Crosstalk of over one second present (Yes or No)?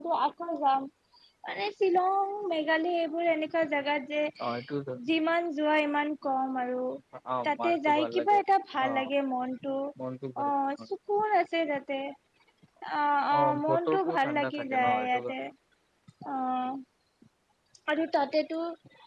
Yes